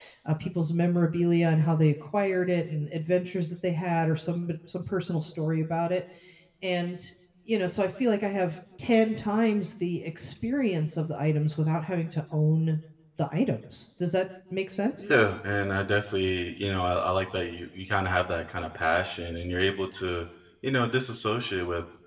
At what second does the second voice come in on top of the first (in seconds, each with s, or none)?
none